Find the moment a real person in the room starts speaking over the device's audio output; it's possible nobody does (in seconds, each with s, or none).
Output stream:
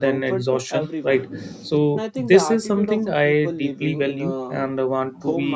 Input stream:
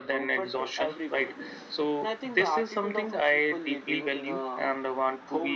none